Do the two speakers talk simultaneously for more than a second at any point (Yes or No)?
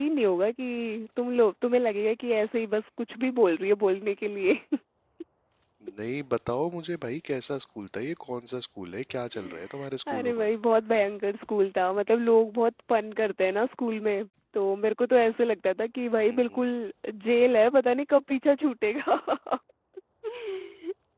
No